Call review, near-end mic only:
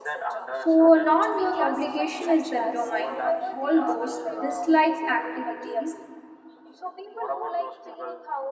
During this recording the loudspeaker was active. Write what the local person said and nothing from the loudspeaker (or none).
So, non work obligation is the domain of all those disliked activities.